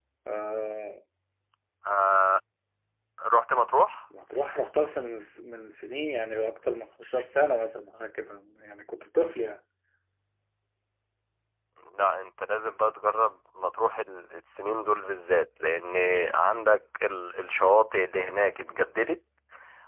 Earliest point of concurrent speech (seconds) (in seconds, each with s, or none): none